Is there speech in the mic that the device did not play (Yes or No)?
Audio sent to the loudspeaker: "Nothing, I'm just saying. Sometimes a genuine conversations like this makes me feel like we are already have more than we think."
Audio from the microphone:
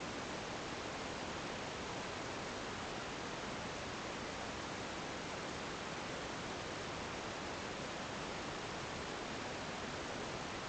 No